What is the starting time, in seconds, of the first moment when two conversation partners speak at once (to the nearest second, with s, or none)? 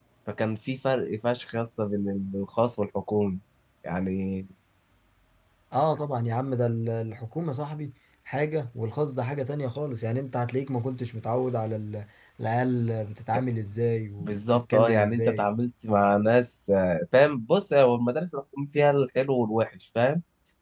14 s